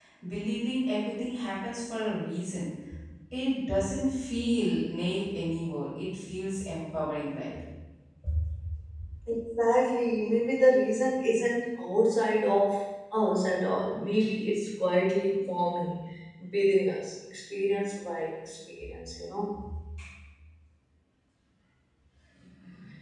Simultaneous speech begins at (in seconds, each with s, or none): none